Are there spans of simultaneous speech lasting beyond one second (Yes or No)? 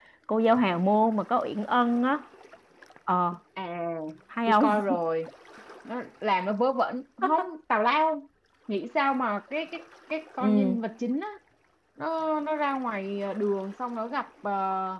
No